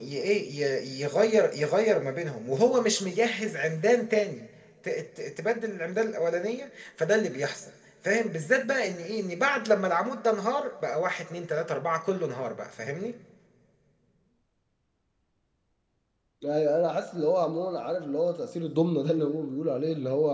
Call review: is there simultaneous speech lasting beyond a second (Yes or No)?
No